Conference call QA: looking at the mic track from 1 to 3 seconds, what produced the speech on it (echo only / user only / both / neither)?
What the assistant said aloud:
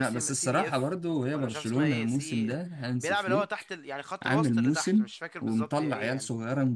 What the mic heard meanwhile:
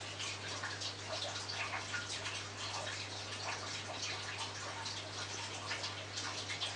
neither